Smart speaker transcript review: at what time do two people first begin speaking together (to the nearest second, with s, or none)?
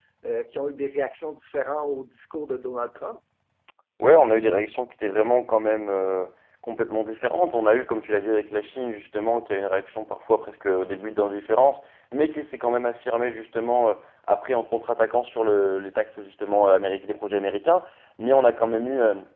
none